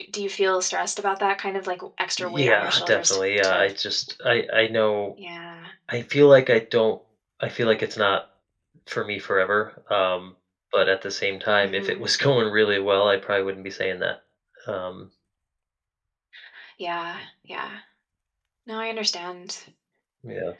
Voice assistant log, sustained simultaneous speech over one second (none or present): present